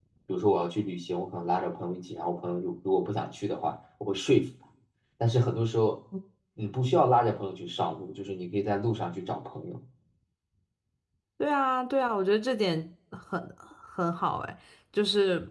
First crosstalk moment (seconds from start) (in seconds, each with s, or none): none